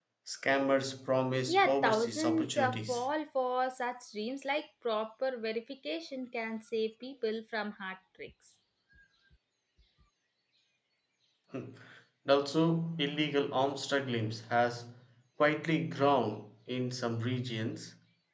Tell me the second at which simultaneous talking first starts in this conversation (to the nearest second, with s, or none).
1 s